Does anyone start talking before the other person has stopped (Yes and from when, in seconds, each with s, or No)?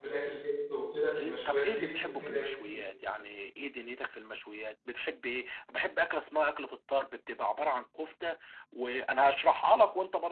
Yes, from 1.4 s